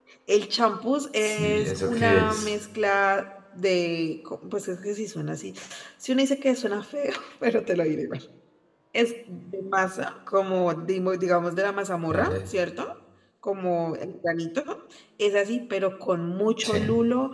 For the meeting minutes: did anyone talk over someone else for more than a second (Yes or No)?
Yes